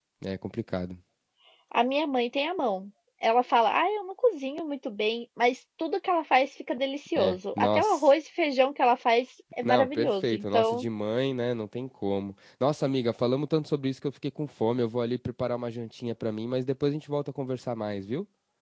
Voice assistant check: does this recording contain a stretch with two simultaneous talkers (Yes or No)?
Yes